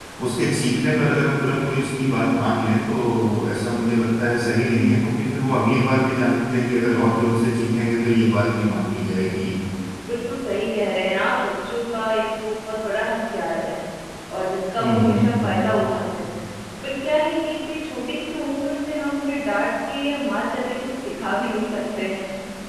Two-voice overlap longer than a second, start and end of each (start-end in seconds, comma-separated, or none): none